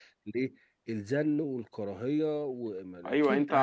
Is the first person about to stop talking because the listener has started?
Yes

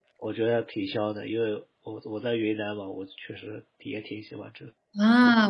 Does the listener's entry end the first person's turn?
Yes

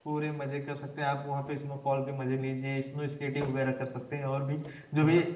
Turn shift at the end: Yes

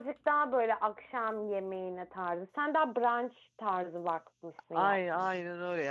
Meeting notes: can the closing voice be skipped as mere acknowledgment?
No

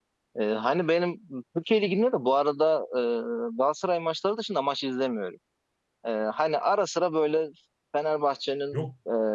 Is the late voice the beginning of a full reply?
No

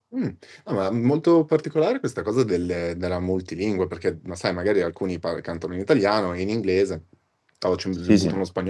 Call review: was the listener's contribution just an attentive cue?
Yes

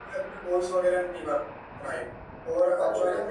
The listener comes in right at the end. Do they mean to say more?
No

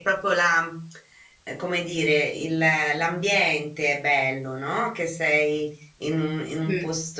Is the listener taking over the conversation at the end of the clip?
No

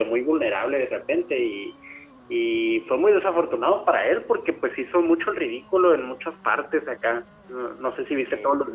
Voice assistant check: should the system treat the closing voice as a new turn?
No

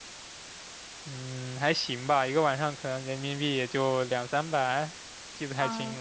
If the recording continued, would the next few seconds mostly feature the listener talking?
Yes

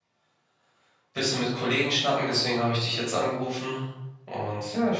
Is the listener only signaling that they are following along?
No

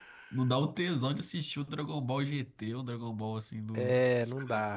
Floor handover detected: Yes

